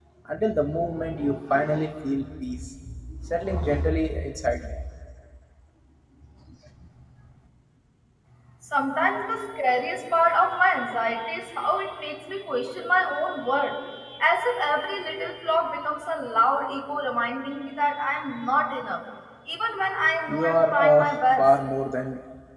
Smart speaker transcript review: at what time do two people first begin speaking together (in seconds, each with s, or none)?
20.3 s